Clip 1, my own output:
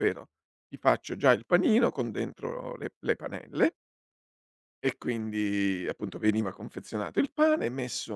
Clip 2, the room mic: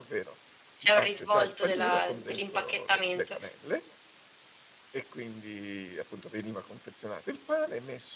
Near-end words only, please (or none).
c'è un risvolto della dell'impacchettamento.